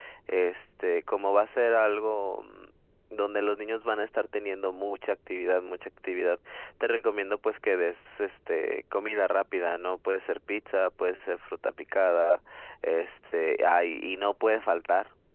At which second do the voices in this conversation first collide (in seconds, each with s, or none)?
none